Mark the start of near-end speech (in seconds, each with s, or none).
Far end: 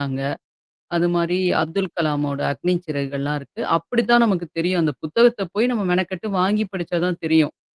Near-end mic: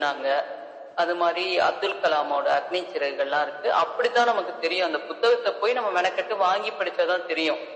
none